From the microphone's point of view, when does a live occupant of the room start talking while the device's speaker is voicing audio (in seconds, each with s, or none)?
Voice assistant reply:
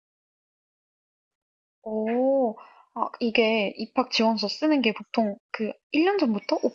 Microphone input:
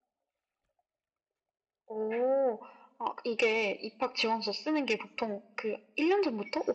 none